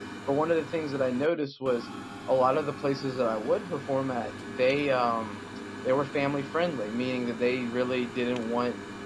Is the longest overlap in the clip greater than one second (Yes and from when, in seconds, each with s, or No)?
No